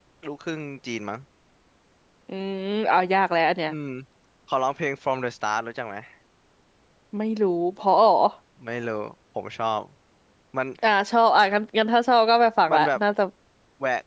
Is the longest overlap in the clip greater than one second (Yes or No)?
No